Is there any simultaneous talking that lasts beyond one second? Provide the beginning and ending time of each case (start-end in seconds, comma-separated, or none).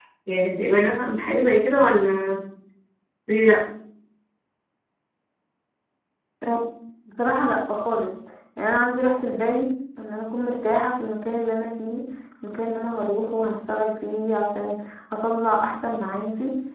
none